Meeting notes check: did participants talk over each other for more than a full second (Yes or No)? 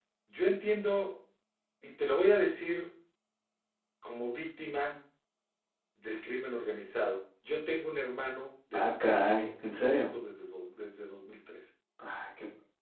Yes